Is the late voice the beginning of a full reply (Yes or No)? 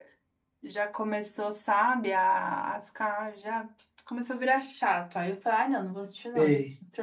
No